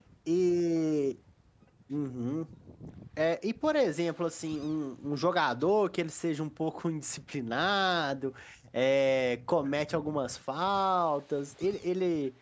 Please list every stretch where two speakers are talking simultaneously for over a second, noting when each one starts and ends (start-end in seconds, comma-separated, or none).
none